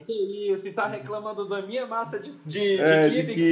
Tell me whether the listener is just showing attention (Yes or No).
No